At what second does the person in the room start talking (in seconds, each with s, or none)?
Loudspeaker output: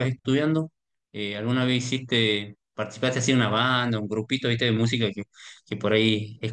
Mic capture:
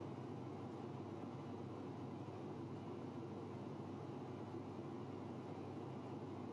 none